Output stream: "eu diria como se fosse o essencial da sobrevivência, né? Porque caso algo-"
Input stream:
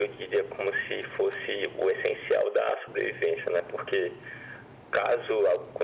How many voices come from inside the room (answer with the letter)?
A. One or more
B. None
B